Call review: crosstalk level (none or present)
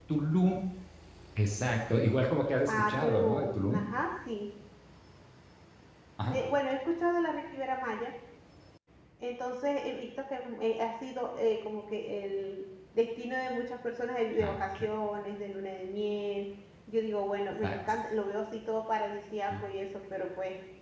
present